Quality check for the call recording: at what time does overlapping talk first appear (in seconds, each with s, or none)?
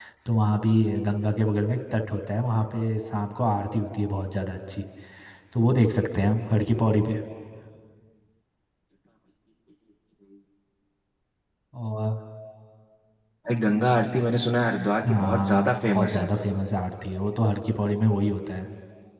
15.0 s